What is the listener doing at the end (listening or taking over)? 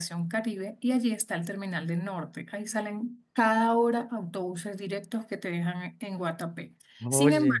listening